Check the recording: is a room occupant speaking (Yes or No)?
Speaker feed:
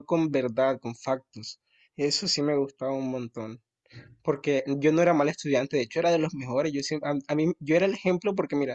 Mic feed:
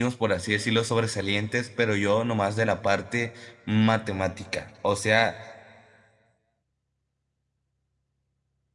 Yes